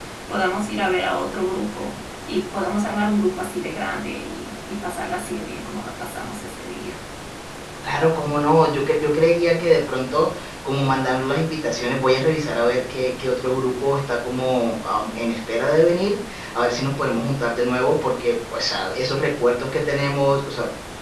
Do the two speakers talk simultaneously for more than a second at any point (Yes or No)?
No